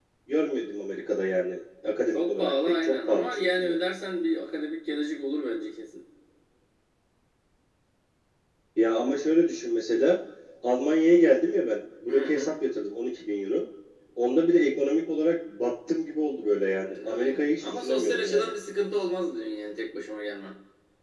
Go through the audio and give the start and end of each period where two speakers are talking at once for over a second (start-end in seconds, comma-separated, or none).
2.1-3.9, 17.1-18.5